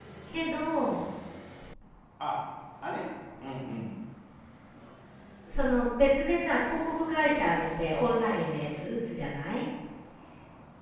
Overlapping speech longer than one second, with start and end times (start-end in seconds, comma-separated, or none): none